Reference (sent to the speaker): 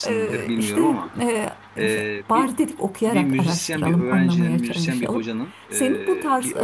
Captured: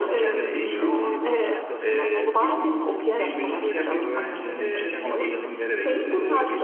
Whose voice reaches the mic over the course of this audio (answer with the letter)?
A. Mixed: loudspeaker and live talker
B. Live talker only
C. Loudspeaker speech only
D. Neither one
A